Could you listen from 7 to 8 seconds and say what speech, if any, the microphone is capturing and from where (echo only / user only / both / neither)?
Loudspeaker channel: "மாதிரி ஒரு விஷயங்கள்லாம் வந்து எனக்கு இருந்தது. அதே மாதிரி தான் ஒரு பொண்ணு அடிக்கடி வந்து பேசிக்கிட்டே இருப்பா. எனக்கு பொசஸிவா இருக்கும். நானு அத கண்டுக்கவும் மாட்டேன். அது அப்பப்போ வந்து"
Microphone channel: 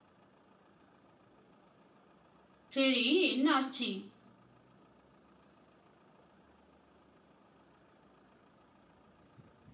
neither